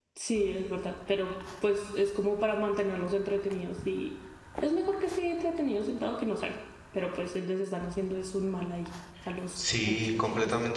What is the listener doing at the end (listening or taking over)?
taking over